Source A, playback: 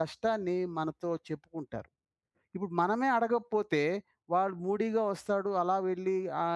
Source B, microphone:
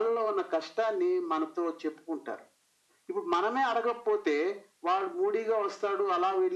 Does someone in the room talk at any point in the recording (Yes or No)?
No